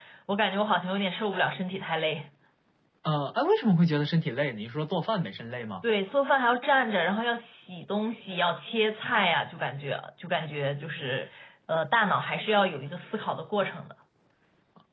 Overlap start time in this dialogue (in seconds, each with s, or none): none